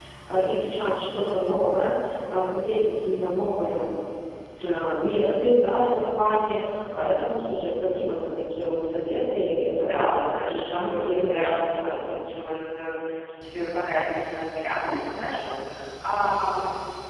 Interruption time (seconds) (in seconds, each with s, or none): 9.8 s